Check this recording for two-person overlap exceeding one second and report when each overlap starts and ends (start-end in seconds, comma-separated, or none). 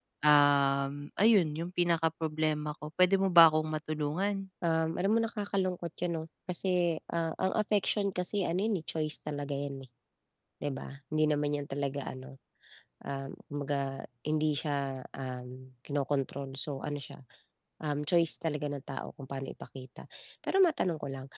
none